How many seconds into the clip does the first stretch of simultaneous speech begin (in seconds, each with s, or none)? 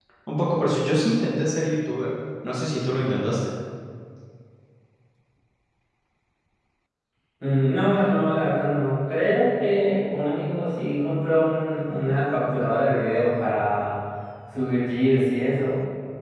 none